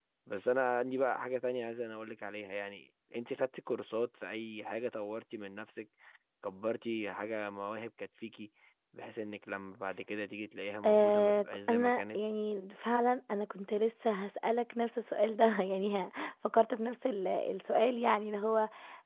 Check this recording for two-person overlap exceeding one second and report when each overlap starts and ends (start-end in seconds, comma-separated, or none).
10.8-12.2